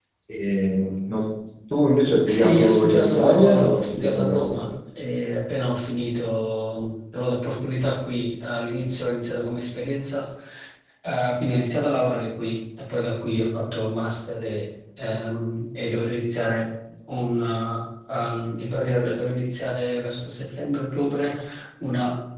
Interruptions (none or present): present